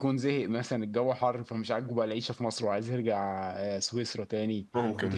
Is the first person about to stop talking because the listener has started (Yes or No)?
No